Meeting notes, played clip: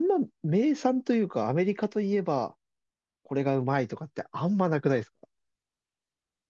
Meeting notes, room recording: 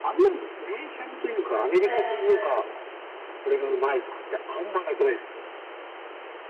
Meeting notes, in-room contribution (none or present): present